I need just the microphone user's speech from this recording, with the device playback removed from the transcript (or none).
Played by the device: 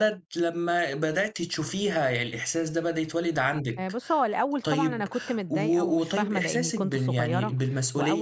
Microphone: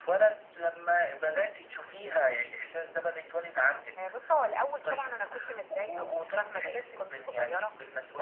none